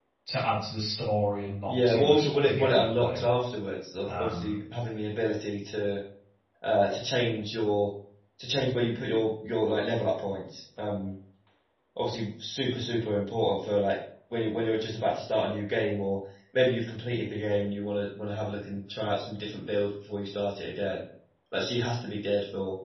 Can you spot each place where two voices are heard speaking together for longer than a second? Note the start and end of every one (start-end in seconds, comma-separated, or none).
1.7-3.3